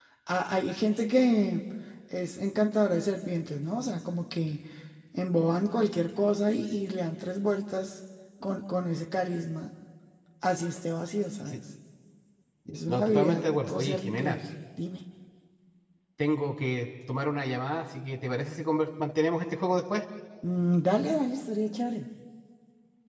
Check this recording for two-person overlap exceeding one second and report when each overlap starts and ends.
12.9-14.4

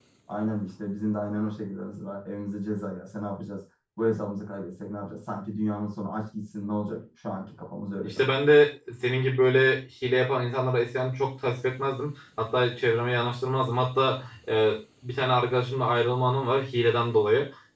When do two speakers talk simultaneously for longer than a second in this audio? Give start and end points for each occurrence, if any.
none

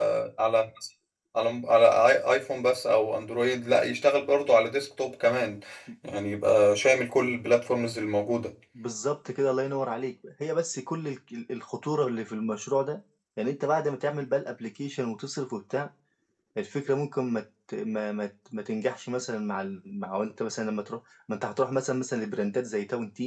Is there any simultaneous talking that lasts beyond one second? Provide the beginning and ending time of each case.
none

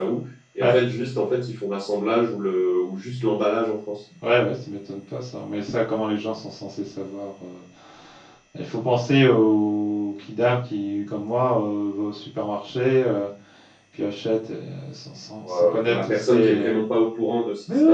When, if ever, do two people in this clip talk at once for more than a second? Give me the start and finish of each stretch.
15.4-16.7

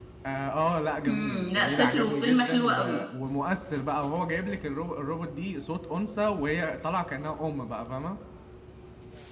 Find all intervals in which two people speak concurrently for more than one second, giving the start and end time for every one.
1.1-3.0

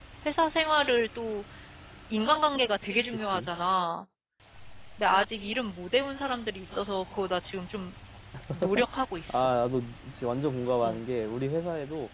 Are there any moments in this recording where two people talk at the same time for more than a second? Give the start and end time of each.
none

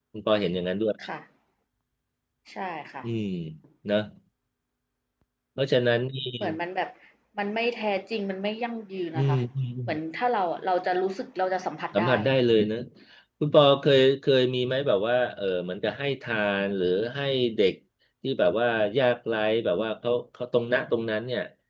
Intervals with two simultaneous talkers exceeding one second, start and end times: none

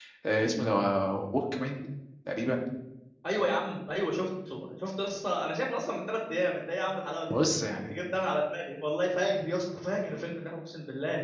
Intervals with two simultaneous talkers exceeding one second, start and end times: none

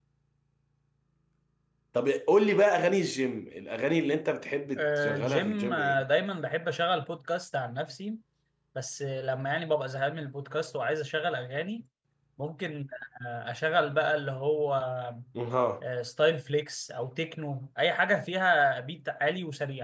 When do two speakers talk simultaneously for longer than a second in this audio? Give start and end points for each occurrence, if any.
4.8-6.0

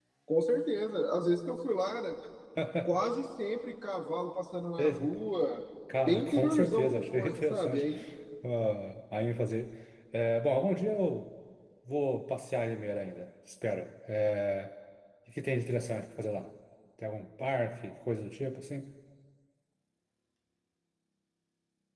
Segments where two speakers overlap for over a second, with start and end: 6.0-7.8

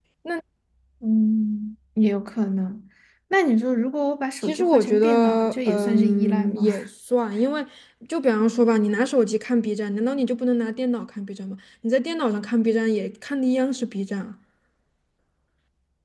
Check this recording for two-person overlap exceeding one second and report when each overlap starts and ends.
4.4-6.6

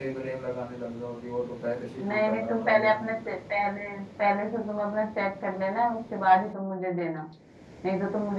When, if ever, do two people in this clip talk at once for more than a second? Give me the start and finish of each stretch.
2.0-3.6

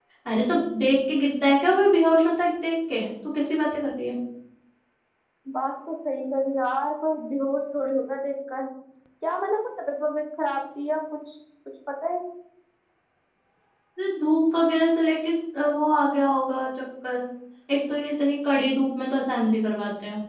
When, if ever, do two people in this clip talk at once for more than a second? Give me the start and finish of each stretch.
none

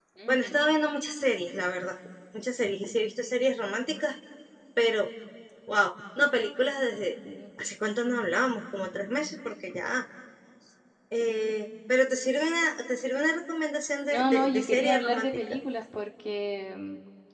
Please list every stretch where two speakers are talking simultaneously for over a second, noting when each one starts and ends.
14.1-15.6

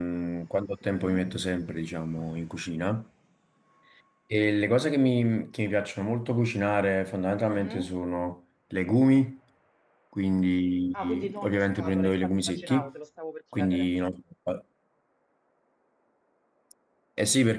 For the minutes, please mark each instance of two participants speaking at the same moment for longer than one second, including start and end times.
11.0-12.9

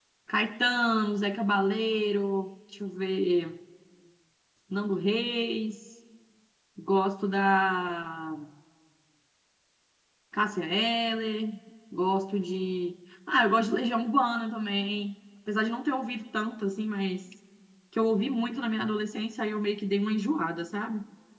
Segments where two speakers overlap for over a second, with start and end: none

